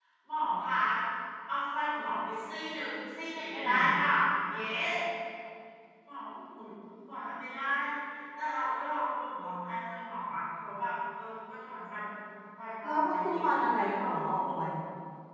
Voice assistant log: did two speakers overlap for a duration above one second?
Yes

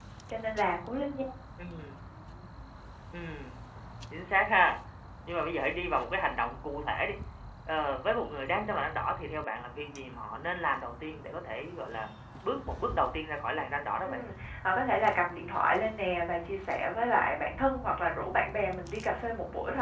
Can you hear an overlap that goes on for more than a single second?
No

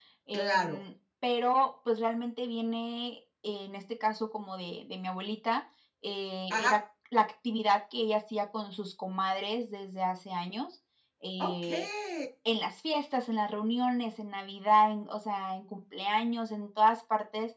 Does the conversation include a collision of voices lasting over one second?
No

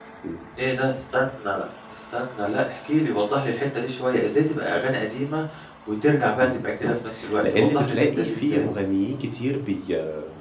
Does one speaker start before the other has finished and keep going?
Yes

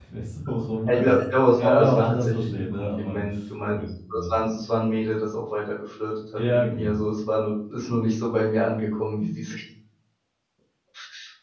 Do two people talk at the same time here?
Yes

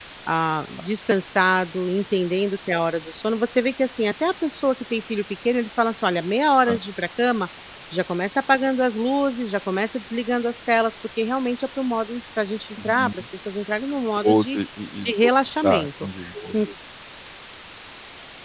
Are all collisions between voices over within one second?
Yes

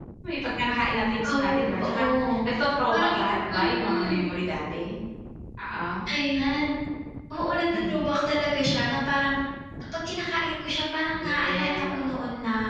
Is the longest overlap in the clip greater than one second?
Yes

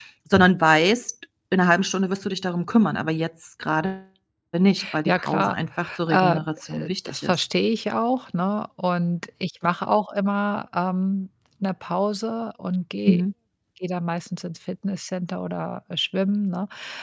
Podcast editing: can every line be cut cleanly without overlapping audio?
No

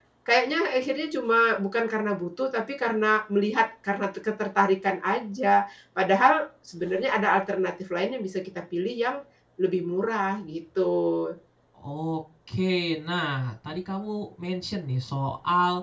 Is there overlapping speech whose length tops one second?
No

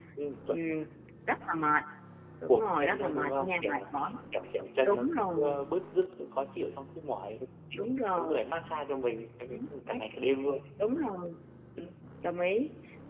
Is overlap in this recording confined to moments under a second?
No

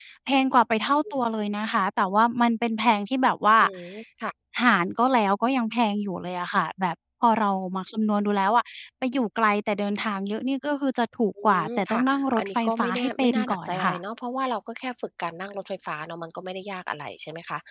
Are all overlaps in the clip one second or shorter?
No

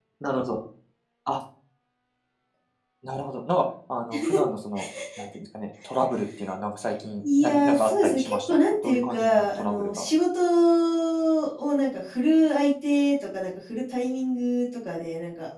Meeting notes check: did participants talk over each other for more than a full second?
Yes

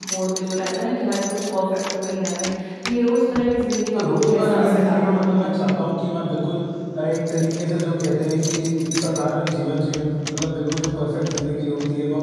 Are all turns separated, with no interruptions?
No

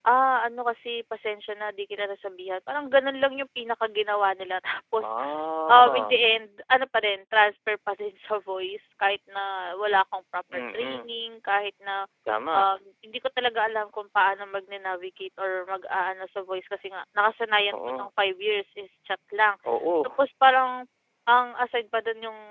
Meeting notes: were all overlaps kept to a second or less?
Yes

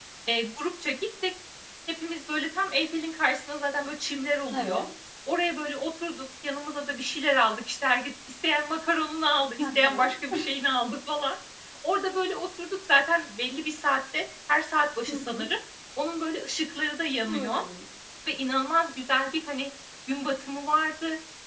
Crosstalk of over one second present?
No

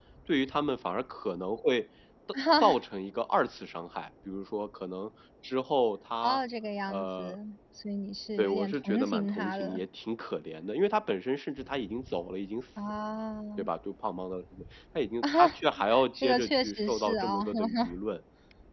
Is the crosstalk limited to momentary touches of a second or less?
No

